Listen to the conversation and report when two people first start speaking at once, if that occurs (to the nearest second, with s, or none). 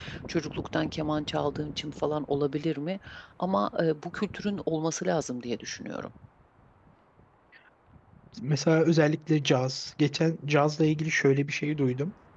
none